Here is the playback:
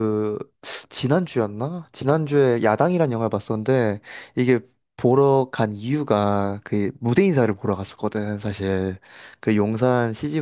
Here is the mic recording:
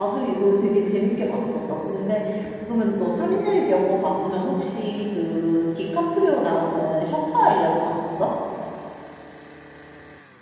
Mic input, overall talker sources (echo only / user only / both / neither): user only